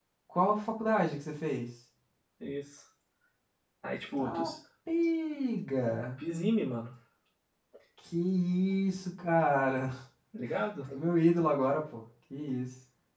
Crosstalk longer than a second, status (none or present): none